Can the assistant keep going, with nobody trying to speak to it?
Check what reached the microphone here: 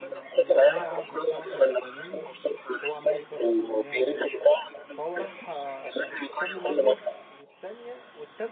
No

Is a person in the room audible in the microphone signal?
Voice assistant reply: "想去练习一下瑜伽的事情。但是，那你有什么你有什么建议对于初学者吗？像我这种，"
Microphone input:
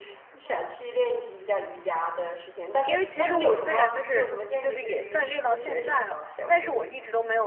Yes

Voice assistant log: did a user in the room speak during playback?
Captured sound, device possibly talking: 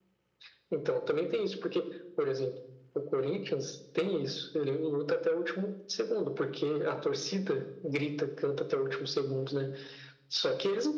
No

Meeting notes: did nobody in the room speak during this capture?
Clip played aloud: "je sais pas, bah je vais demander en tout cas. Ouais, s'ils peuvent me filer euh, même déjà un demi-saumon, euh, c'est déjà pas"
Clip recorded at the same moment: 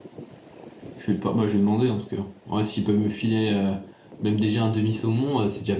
Yes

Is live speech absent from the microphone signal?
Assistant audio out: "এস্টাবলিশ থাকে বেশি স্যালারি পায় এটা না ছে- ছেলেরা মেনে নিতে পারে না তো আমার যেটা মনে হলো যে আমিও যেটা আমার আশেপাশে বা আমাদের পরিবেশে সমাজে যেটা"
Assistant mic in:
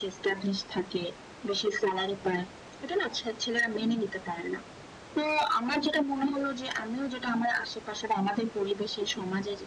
Yes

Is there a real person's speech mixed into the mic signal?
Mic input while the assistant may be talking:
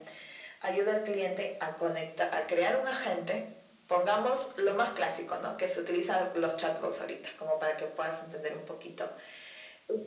No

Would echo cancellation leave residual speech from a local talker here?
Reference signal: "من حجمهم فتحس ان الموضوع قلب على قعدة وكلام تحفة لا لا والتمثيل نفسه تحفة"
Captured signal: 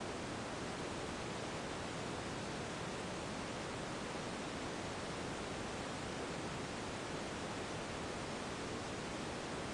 No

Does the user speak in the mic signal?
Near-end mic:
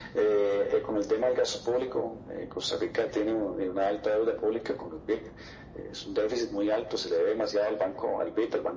No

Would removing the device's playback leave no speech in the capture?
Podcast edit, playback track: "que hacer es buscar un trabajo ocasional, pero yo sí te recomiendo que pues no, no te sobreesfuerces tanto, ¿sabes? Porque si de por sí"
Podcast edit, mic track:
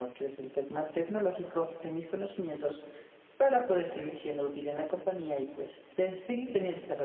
No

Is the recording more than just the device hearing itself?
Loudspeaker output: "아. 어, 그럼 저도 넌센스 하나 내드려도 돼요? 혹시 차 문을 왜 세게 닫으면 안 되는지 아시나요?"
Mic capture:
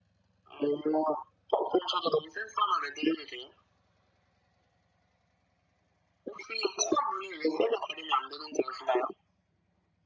No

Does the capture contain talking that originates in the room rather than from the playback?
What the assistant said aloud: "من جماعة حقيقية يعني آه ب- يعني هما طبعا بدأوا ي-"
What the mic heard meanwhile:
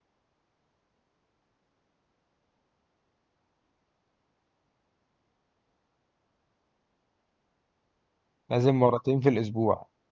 Yes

